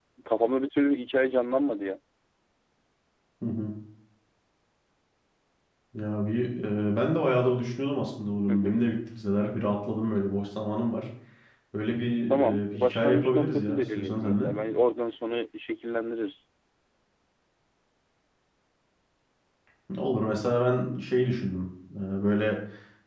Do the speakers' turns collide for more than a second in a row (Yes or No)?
Yes